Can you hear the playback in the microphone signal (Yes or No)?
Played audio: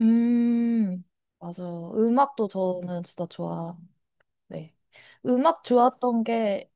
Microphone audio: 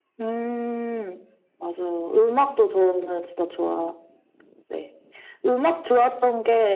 Yes